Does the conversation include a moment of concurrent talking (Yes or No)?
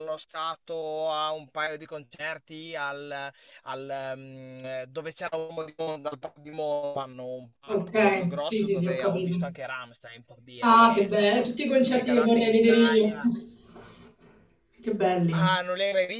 Yes